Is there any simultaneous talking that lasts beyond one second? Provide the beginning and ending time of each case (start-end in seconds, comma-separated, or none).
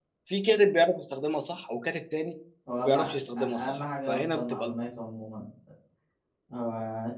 3.4-4.7